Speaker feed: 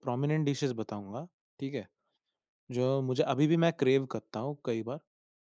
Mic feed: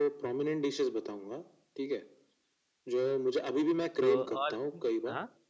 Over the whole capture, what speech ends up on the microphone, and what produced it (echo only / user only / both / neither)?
both